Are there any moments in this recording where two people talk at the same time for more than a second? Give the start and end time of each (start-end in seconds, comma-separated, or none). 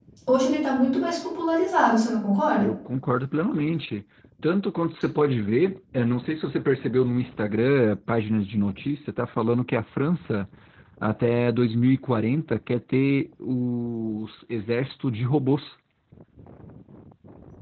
none